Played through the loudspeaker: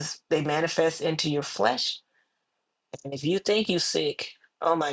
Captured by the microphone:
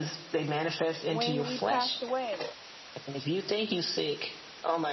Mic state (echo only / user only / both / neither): both